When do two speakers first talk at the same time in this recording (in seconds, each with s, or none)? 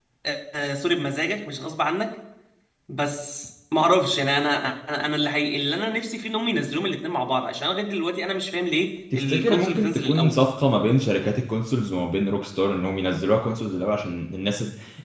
9.1 s